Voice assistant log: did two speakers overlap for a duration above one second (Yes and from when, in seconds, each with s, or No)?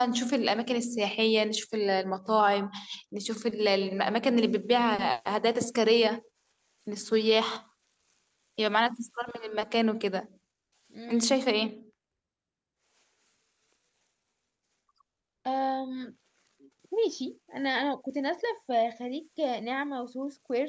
No